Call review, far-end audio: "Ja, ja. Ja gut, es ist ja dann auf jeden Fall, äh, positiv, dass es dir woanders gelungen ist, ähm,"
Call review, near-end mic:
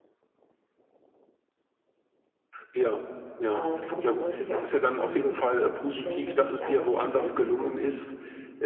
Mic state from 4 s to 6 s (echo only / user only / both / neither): both